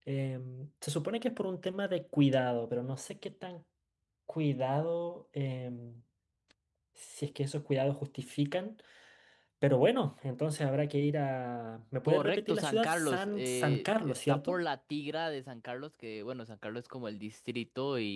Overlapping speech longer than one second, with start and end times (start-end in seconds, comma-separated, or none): 12.1-14.6